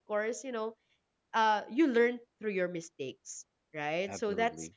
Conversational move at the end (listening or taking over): listening